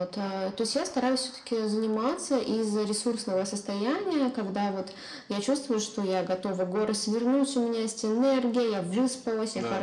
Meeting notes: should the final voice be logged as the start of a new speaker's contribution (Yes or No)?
No